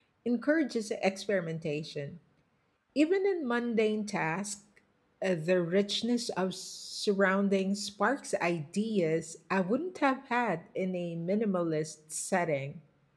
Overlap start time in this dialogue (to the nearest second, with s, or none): none